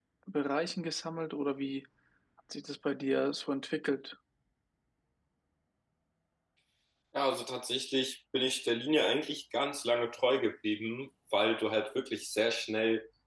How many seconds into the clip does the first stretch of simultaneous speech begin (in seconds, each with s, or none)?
none